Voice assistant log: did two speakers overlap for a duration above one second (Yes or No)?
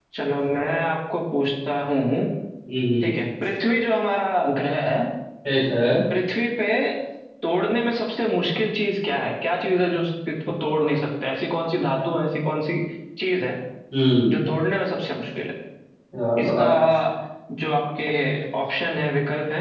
No